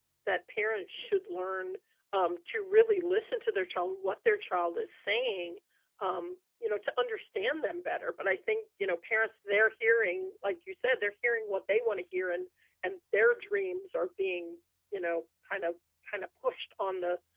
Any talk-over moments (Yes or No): No